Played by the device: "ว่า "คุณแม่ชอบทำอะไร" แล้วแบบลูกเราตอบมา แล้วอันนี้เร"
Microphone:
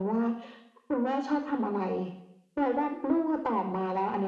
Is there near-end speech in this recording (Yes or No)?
No